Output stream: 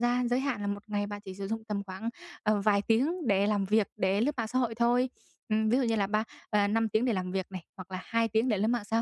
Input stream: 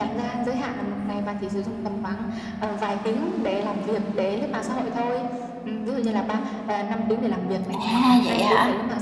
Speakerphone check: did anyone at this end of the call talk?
Yes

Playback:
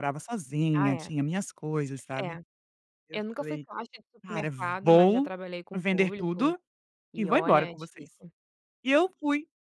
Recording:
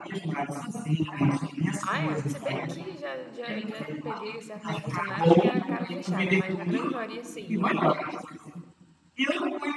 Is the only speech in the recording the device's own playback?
No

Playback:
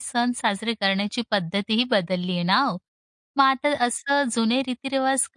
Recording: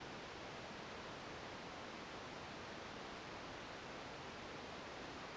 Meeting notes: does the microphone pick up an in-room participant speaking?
No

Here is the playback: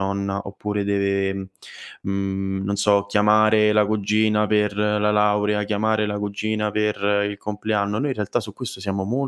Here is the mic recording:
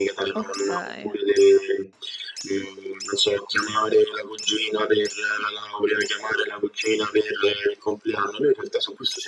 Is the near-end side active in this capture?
Yes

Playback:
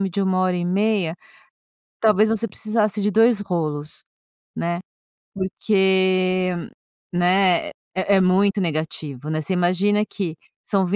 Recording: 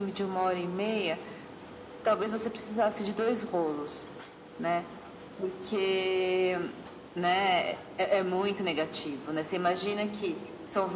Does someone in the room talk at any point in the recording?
No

